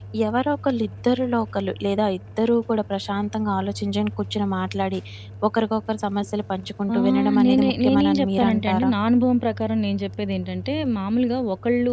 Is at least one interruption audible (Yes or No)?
Yes